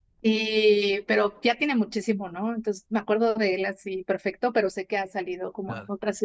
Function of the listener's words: taking over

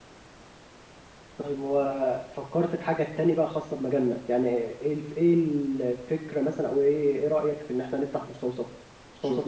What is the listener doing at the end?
taking over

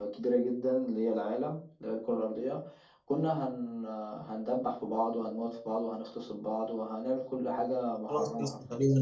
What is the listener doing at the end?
taking over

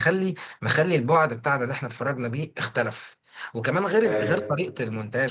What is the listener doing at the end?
listening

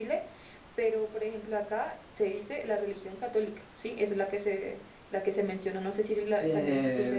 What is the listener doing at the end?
taking over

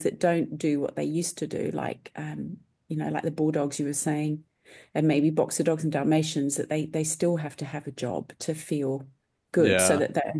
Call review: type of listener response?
listening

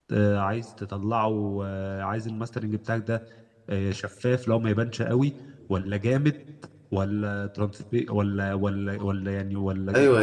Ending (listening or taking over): taking over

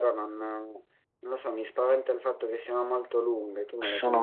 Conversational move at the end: taking over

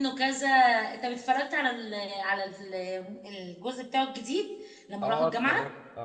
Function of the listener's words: taking over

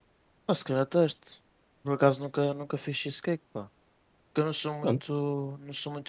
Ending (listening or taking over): listening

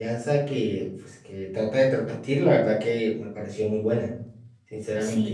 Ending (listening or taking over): taking over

